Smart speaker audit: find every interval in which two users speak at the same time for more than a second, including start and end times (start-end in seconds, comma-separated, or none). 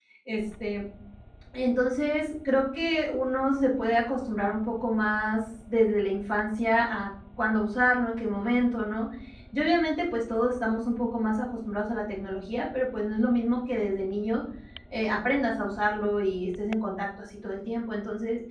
none